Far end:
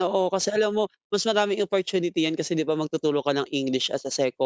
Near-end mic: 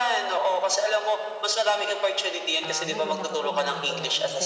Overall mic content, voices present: both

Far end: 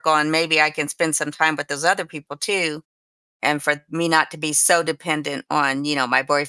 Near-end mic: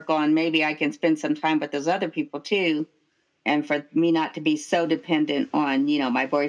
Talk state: echo only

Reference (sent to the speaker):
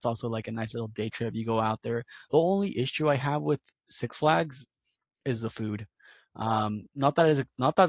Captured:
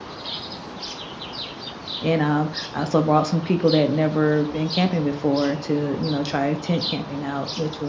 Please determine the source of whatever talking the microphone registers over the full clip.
user only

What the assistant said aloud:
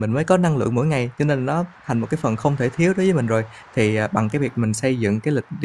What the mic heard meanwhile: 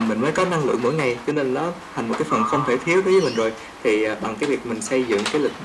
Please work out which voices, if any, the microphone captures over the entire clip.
both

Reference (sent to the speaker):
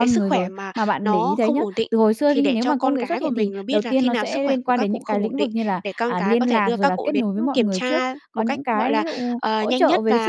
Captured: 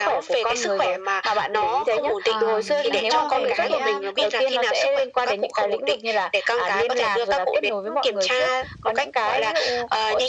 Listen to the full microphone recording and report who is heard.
both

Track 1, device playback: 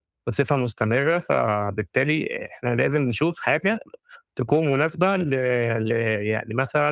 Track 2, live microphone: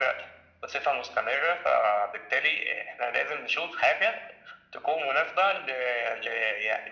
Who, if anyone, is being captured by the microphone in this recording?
echo only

